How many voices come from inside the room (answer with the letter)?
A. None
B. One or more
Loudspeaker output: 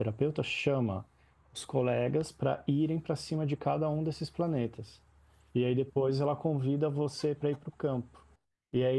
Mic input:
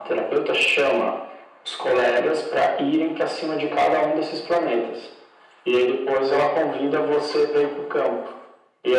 A